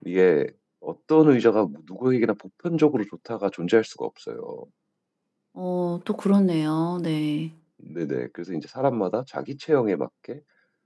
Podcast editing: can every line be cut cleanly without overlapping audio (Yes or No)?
Yes